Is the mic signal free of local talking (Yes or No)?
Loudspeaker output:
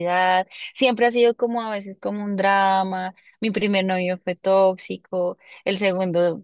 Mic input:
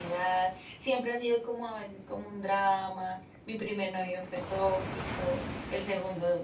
Yes